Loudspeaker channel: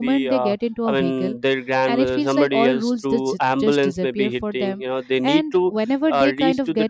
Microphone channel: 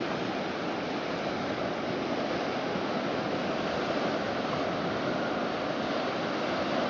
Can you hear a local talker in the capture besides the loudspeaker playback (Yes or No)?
No